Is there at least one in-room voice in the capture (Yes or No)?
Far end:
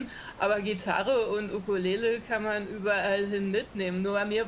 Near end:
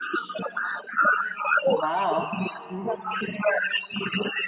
Yes